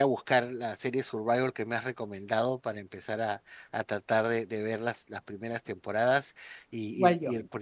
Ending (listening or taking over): listening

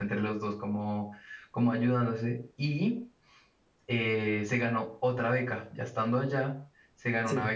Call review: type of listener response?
listening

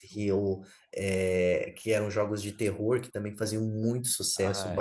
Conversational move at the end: listening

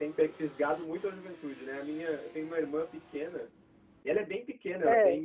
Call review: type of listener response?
listening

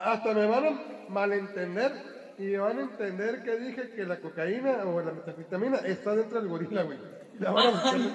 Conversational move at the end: taking over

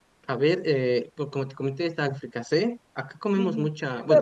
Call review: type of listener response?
taking over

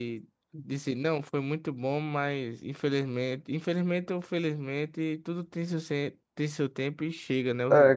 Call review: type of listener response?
taking over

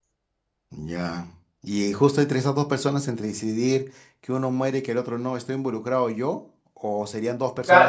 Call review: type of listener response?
taking over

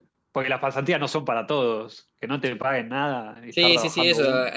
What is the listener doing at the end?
taking over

